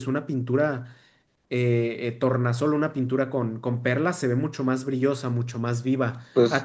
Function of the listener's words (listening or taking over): listening